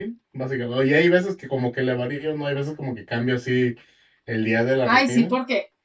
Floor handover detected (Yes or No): Yes